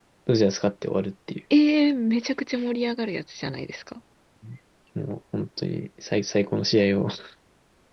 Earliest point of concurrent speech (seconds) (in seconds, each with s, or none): none